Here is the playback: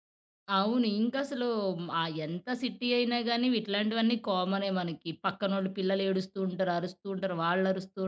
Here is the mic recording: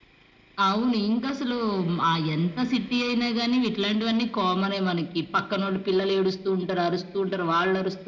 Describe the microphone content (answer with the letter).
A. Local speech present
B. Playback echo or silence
B